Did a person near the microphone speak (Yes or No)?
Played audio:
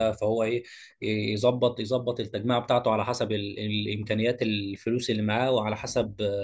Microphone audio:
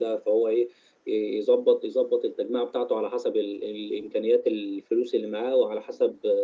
No